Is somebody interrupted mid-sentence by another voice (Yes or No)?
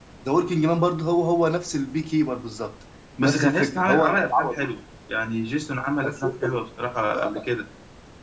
Yes